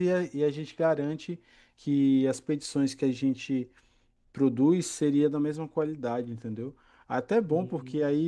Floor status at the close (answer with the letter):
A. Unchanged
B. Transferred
A